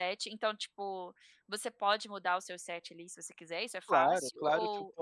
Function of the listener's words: taking over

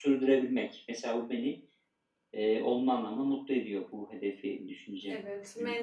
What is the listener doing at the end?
taking over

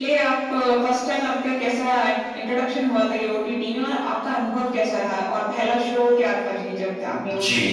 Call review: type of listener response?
taking over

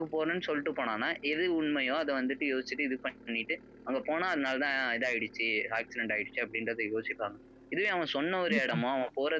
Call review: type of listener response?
listening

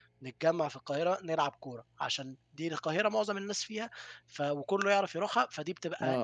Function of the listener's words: taking over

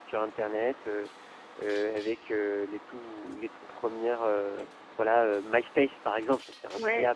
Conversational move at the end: taking over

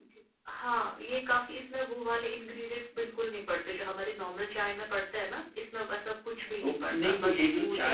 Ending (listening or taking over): taking over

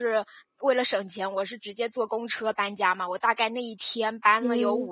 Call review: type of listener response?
listening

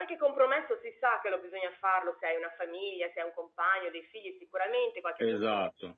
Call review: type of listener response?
listening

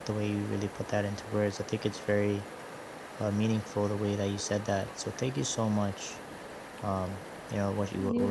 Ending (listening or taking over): listening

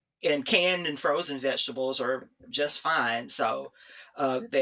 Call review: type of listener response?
listening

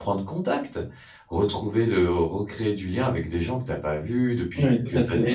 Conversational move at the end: taking over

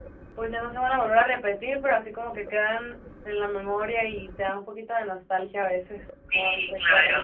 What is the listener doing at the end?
taking over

